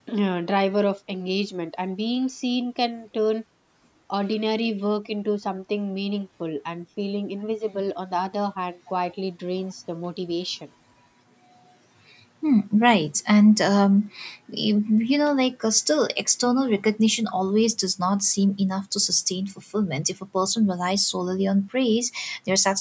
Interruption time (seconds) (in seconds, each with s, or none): none